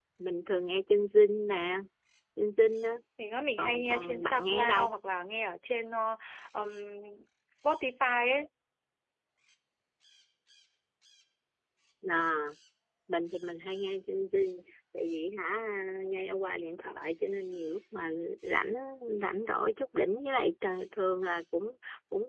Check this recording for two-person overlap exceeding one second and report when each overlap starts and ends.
3.6-4.9

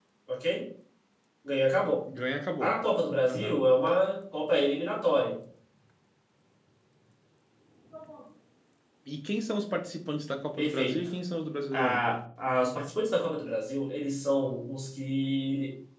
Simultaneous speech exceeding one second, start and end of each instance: none

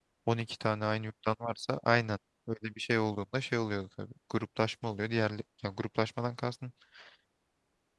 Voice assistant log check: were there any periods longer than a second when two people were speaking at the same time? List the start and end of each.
none

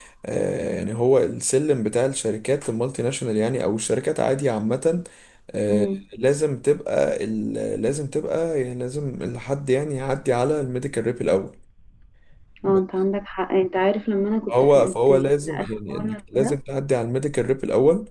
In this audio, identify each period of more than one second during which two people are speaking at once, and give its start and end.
14.5-16.6

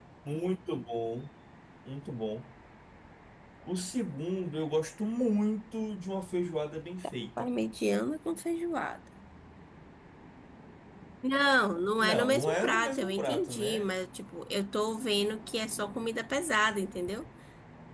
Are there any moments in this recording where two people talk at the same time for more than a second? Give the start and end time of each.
12.0-13.8

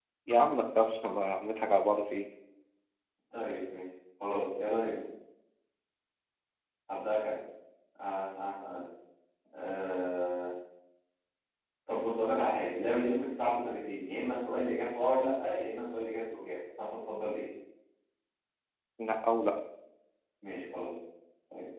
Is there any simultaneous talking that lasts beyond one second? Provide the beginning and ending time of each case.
none

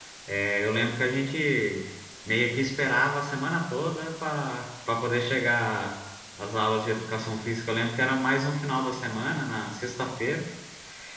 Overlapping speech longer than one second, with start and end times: none

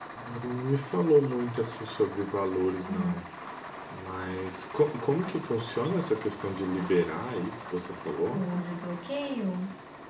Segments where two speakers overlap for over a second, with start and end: none

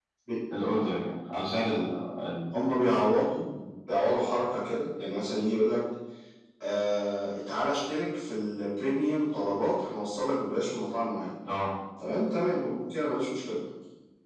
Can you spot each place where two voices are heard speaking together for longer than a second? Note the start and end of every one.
none

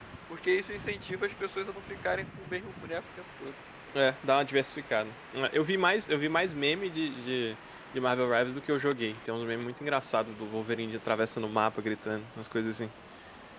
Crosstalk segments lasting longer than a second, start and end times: none

